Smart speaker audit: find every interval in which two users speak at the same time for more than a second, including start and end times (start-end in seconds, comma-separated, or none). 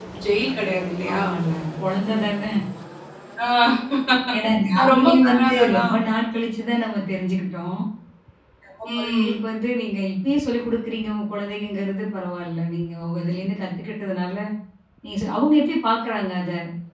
4.8-6.0